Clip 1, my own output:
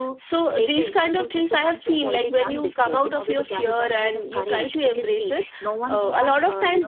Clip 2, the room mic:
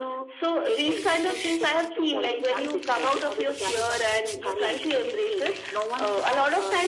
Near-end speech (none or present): none